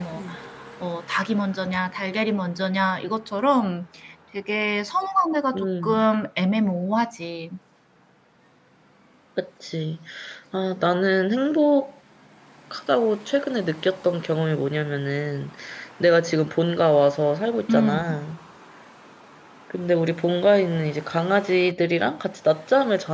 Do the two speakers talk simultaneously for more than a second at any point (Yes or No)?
No